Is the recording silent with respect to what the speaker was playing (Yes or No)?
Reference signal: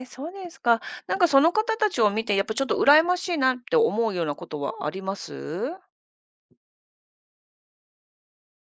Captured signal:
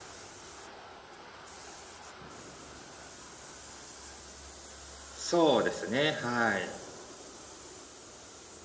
Yes